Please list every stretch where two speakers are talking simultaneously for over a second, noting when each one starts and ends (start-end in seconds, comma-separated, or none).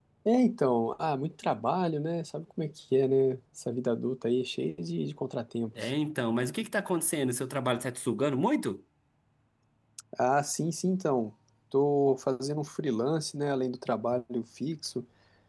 none